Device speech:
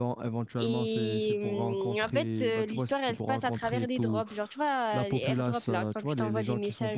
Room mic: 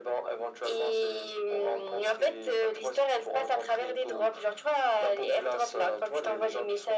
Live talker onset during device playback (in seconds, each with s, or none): none